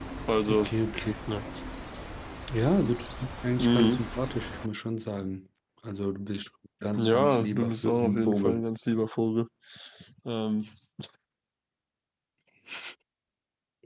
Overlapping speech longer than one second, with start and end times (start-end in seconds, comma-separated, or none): 7.0-8.6